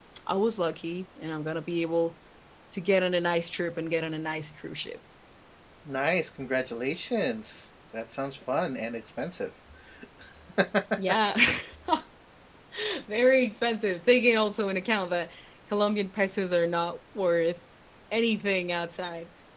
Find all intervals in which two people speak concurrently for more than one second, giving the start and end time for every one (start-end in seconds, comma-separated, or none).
none